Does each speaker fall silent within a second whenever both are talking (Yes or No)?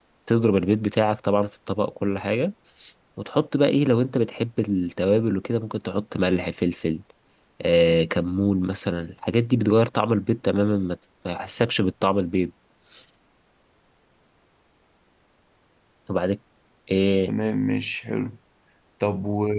Yes